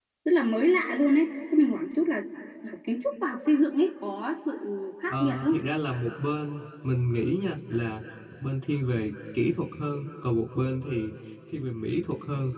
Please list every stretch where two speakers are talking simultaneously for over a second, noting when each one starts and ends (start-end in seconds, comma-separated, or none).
none